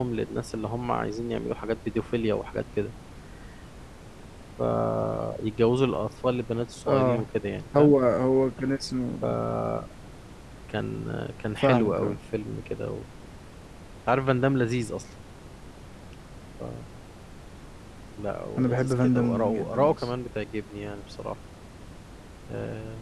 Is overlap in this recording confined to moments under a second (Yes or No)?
No